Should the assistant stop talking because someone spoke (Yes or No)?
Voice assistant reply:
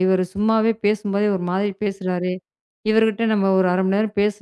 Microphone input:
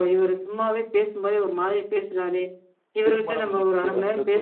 Yes